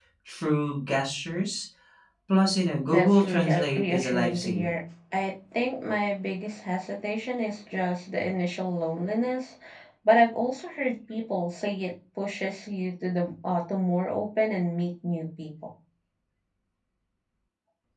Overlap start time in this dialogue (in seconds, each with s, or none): 2.9 s